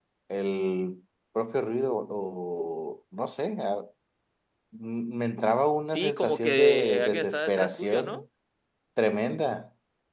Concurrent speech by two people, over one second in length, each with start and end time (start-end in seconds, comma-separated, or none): 5.9-8.2